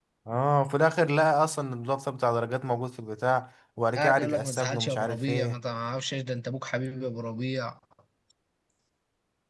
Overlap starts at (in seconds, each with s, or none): 4.0 s